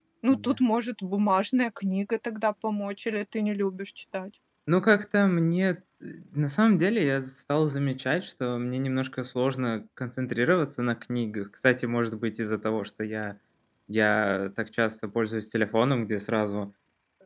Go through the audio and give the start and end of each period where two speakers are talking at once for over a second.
none

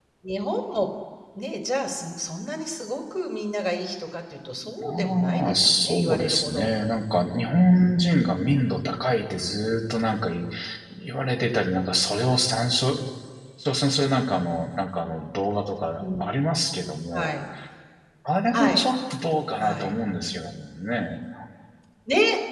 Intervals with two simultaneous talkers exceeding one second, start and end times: 4.8-6.7

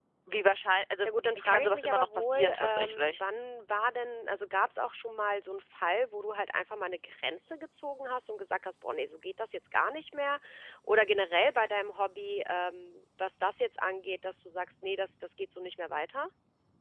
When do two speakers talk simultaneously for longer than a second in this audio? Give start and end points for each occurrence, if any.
1.0-3.2

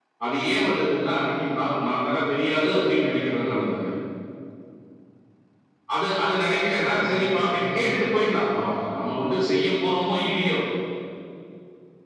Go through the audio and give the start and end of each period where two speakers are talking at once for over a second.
6.8-8.1

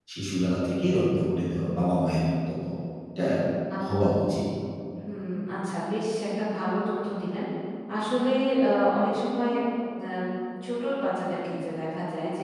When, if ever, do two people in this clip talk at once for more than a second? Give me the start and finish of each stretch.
none

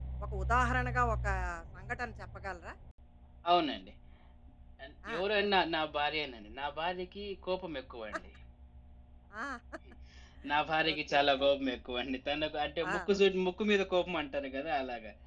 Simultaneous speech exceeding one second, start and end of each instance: none

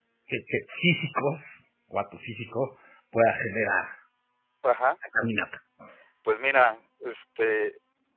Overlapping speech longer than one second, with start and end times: none

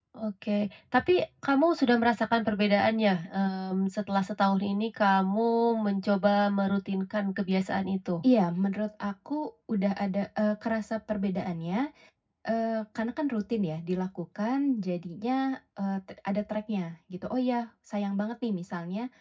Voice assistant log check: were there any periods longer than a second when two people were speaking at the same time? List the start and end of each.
none

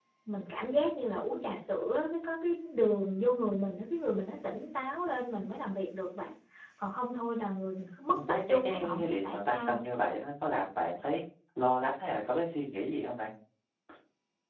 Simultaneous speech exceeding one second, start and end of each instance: 8.3-9.8

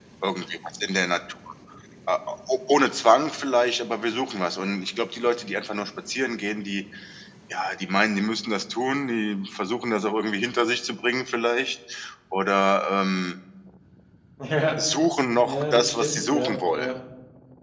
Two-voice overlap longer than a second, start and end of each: 15.4-16.9

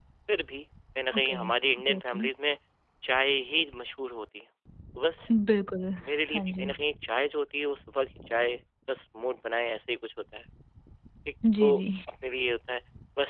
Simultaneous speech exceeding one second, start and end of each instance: none

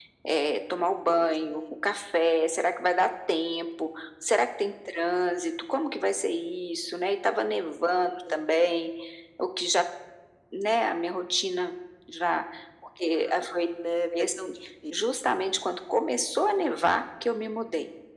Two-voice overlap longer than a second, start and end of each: none

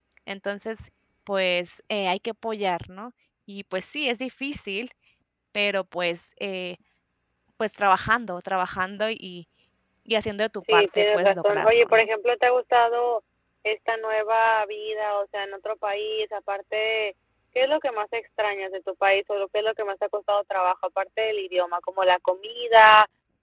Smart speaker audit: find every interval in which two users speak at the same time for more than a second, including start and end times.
10.7-12.1

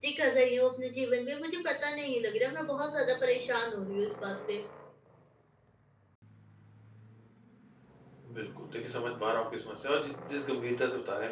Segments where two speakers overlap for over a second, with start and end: none

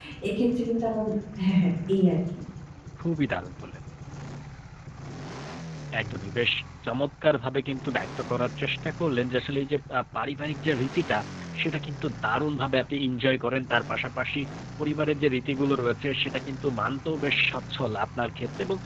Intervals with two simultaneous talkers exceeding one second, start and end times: none

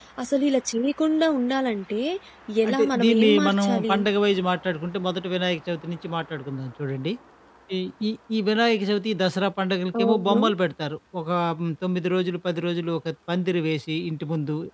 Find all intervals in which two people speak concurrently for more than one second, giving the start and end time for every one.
2.7-4.0

